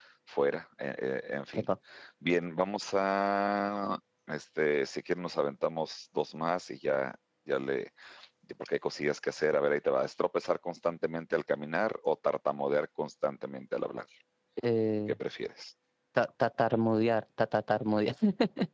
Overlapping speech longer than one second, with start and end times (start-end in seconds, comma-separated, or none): none